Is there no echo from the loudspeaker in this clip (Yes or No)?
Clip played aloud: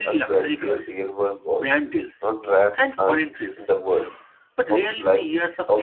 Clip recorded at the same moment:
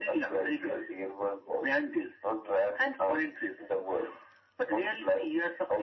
No